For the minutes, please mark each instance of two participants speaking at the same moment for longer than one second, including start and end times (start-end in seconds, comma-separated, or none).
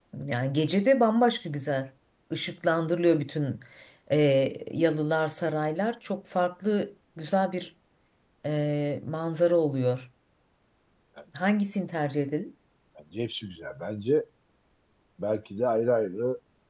none